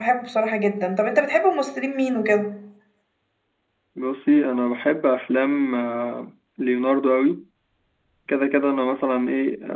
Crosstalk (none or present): none